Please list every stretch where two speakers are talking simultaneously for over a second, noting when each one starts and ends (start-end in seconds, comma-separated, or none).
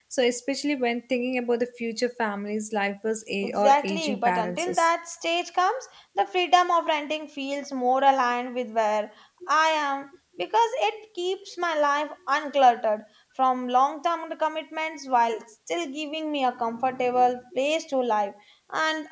3.4-4.7